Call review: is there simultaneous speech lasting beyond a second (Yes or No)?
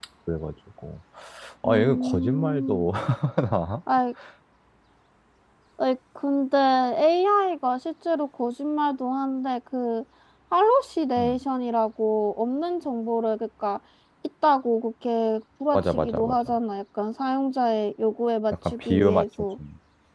Yes